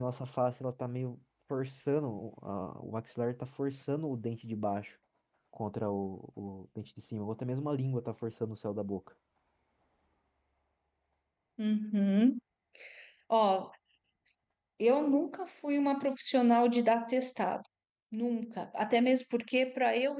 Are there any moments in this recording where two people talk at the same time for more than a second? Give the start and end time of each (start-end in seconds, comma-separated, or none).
none